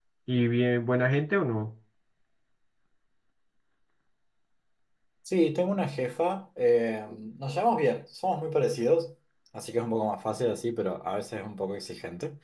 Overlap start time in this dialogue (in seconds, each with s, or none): none